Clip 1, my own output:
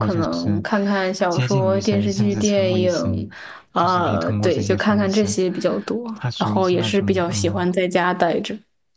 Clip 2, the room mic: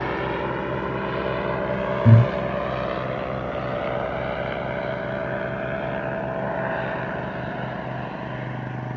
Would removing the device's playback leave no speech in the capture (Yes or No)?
No